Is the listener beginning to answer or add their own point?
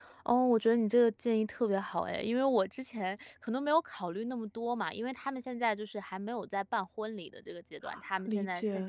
No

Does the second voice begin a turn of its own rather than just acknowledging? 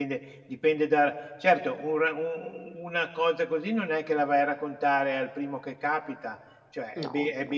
No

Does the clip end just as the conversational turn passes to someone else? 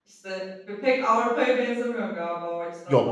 Yes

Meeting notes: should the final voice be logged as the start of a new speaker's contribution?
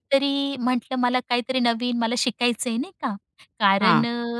No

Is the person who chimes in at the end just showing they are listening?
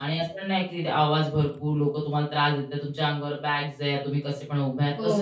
Yes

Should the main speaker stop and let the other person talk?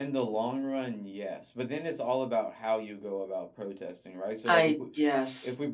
No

